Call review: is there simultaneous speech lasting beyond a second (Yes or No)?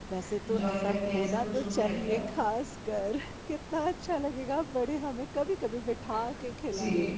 Yes